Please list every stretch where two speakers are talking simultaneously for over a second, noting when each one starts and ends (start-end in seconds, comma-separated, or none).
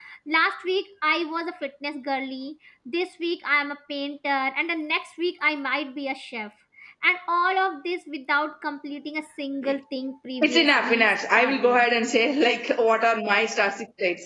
10.4-11.8